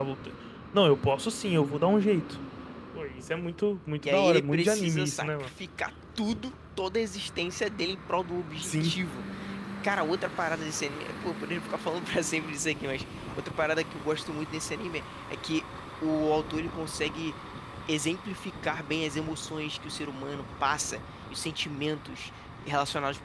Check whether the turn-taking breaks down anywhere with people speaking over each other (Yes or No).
Yes